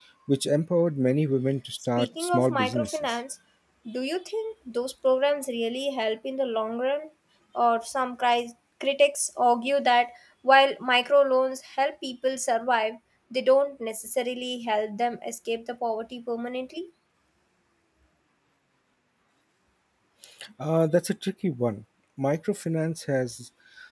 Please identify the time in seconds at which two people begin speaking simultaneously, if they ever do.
2 s

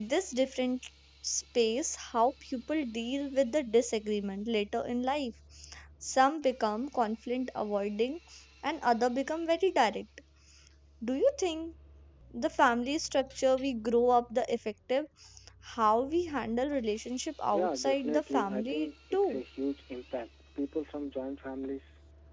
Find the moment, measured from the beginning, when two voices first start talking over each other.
18 s

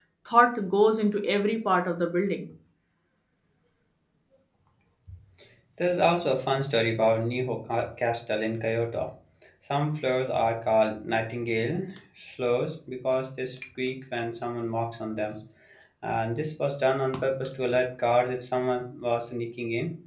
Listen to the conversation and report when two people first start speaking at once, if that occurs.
none

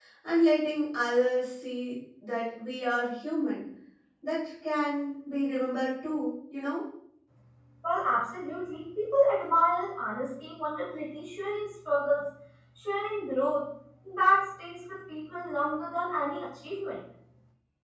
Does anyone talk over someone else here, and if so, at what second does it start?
none

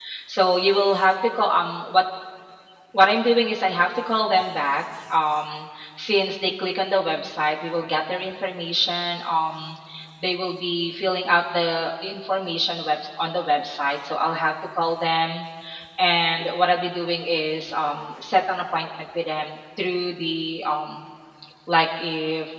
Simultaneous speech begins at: none

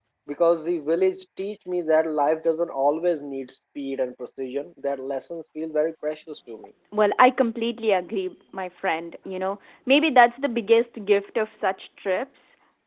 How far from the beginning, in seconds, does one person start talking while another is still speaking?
none

